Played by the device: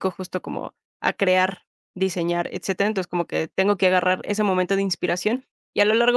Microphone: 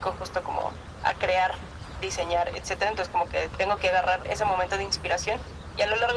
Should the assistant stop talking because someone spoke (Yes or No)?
No